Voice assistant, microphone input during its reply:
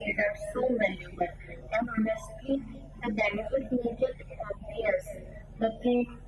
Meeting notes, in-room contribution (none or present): none